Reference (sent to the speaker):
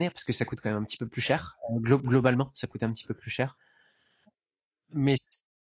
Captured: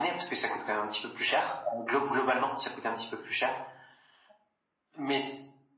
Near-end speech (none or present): none